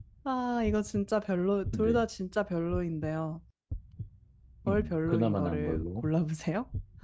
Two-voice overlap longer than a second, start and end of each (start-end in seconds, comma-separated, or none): 4.7-6.0